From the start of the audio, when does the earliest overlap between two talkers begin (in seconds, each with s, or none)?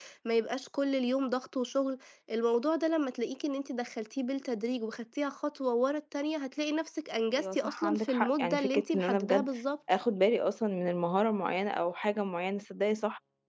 7.3 s